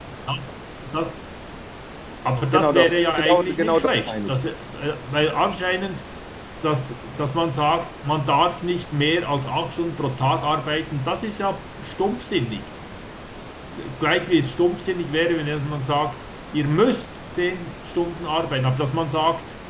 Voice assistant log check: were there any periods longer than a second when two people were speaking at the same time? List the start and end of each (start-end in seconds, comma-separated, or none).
2.5-4.4